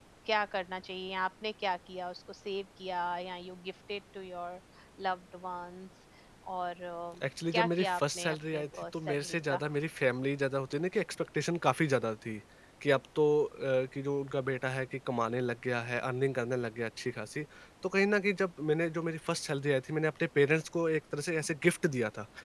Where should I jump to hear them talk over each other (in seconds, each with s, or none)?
7.5 s